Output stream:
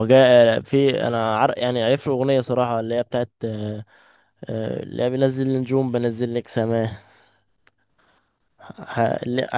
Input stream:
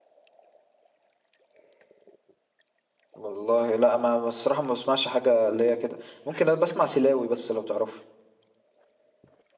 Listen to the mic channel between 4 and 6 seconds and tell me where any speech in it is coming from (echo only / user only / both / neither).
user only